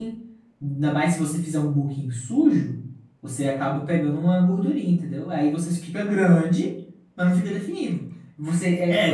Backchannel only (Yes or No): No